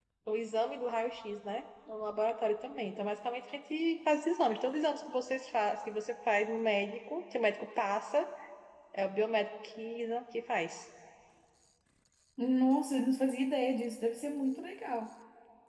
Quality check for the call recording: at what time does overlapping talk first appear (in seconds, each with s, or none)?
none